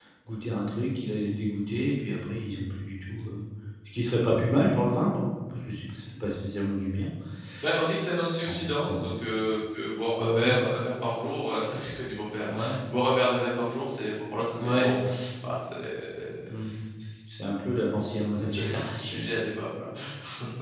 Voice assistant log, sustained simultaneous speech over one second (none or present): present